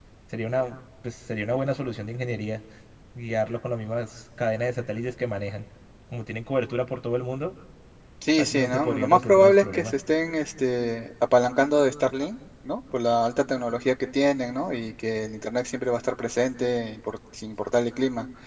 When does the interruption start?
8.4 s

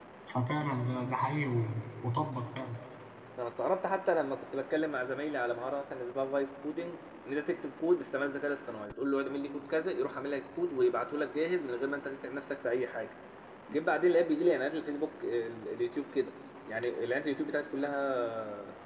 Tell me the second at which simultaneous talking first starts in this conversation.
none

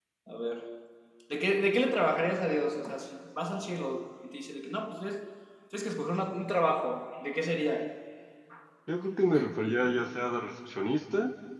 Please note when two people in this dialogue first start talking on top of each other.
none

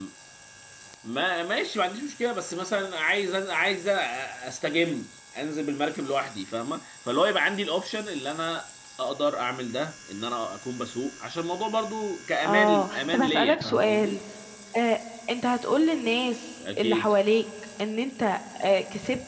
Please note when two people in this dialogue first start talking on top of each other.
12.4 s

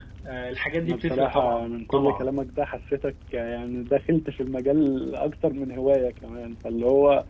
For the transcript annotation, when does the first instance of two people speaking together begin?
0.8 s

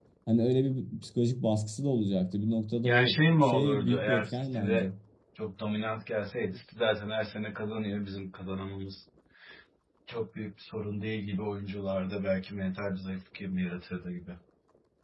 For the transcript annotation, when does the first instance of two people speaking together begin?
2.8 s

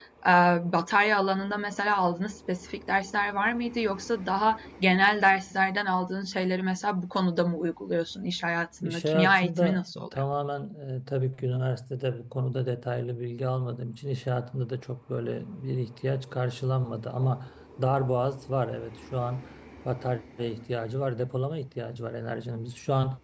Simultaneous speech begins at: 8.8 s

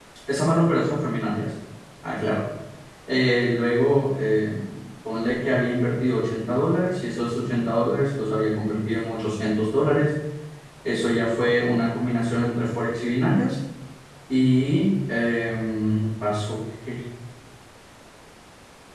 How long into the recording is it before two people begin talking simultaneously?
none

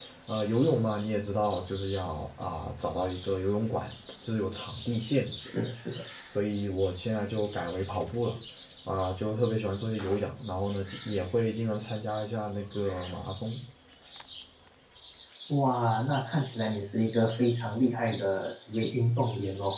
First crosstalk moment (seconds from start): none

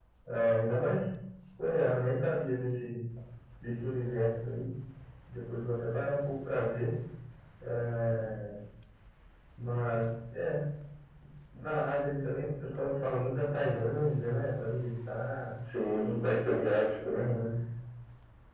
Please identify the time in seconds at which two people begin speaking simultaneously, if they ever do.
16.0 s

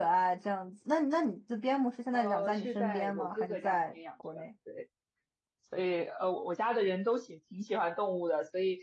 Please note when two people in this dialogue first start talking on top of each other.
2.1 s

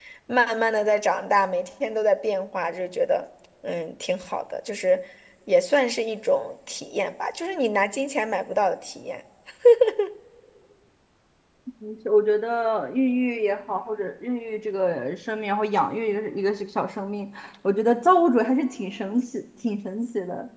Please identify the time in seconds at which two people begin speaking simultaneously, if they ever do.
none

